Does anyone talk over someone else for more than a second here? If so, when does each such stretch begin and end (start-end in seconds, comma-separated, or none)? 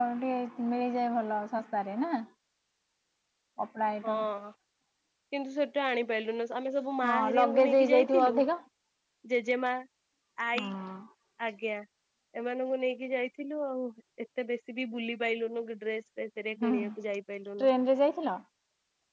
7.1-8.4